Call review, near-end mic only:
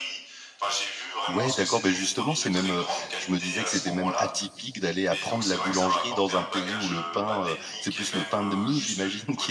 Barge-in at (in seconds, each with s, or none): 1.3 s